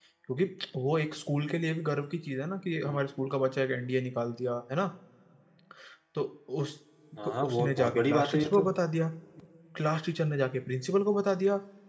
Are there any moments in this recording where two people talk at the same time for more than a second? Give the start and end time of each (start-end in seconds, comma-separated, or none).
7.4-8.7